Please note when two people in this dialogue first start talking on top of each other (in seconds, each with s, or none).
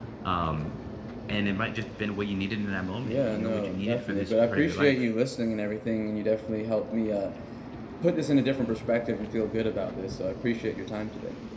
3.0 s